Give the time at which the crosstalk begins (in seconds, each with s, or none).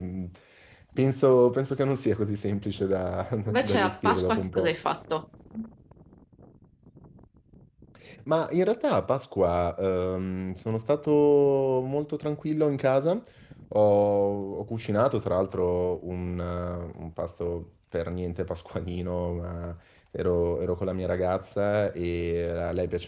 3.5 s